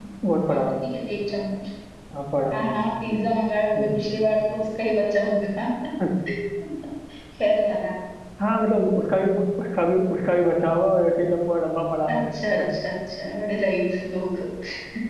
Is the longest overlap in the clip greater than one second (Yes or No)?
No